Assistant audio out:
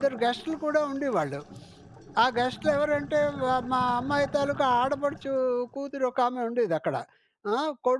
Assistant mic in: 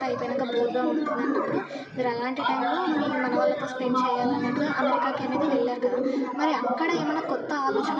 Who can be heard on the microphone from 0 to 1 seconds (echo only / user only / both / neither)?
both